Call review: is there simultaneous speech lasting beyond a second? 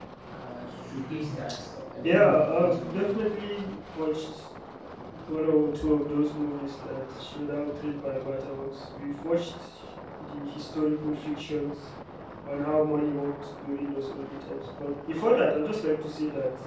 Yes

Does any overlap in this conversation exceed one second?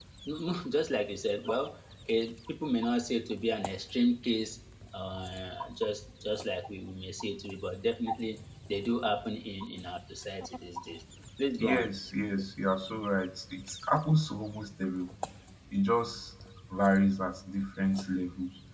No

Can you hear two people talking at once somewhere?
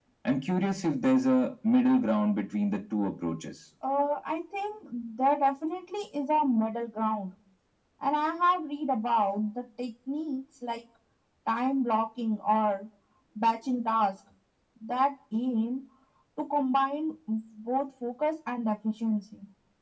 No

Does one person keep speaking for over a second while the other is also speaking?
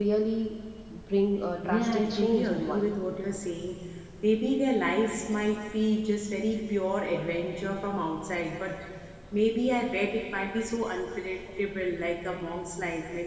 Yes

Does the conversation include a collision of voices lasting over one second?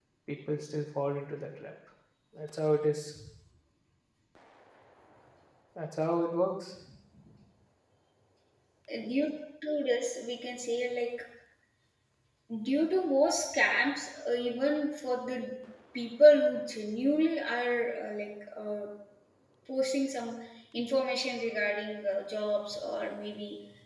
No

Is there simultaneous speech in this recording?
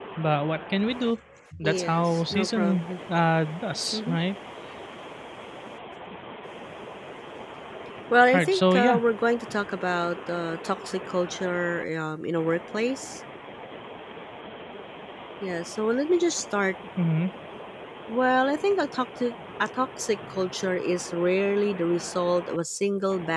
Yes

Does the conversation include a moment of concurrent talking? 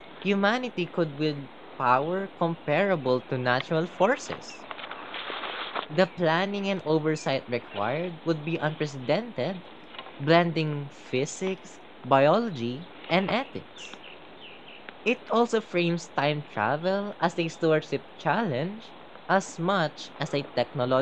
No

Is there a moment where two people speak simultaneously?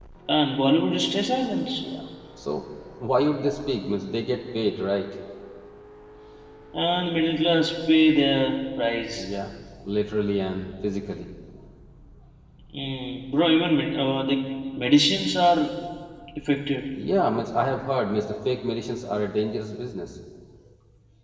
No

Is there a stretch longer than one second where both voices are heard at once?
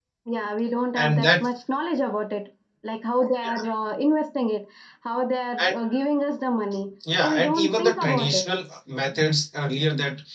Yes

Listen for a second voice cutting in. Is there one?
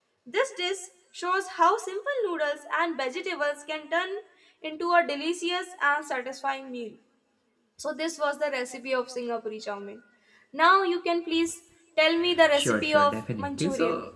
Yes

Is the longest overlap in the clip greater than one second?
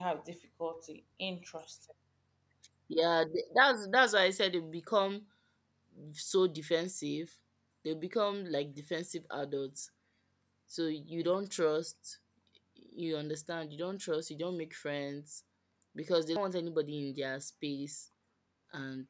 No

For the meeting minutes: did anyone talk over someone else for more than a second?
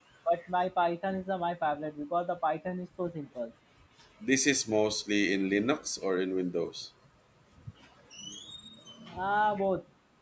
No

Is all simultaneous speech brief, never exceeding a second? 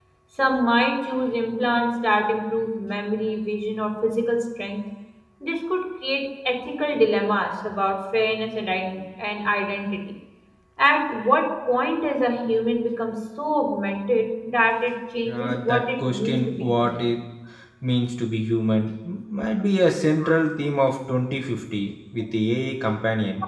No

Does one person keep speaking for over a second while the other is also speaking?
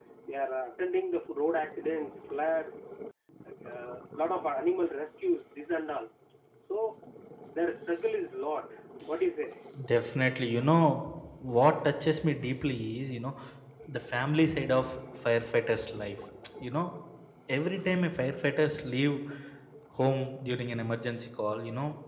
No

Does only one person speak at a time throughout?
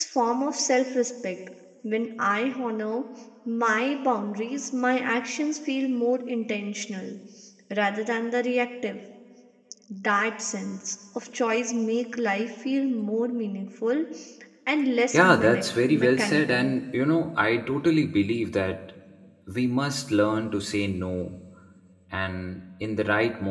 No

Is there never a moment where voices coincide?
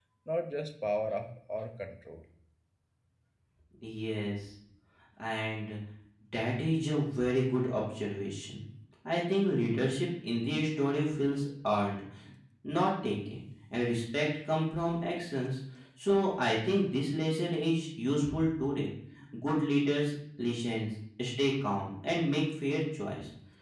Yes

